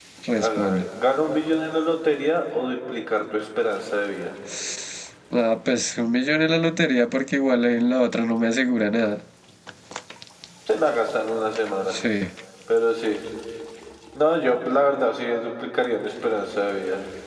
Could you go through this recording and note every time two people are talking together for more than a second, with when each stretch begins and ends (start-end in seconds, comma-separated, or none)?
none